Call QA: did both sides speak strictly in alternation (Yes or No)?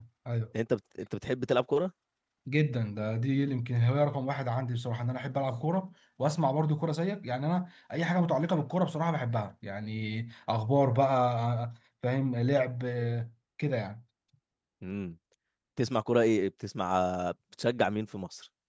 Yes